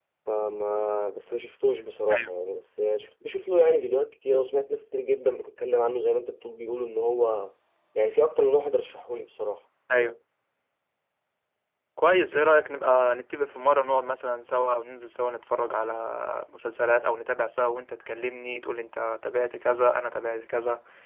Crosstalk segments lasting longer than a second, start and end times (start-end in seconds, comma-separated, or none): none